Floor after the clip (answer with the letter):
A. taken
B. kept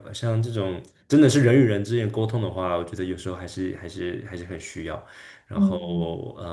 B